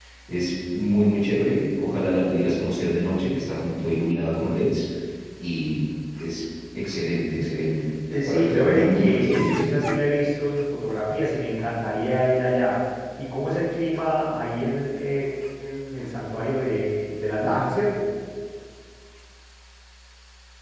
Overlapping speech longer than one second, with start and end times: 8.3-9.7

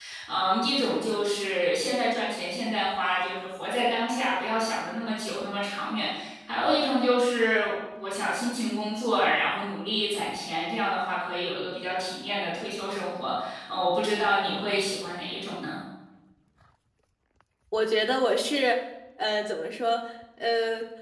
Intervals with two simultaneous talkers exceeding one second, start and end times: none

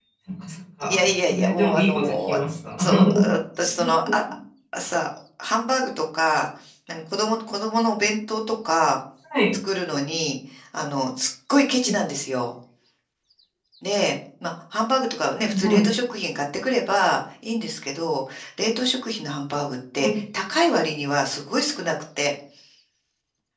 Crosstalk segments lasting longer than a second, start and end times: 0.9-2.4

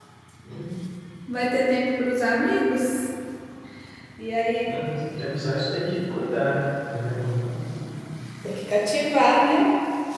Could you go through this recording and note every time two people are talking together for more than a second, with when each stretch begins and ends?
none

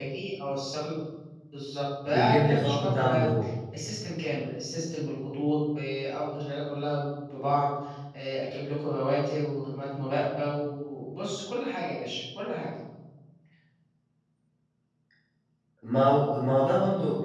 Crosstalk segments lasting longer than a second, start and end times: 2.1-3.3

